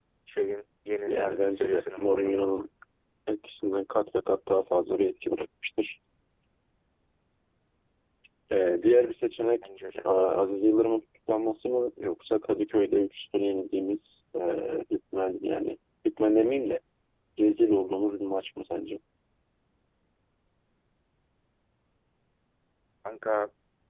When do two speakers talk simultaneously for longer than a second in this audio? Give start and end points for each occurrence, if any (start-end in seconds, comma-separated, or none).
1.1-2.7